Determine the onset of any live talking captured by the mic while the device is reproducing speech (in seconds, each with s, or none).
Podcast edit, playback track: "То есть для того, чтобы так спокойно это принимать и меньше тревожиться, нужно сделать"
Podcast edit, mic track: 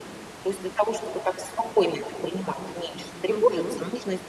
3.3 s